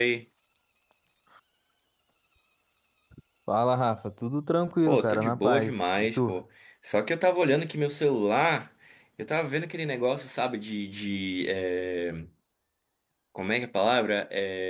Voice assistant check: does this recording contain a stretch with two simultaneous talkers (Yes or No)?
Yes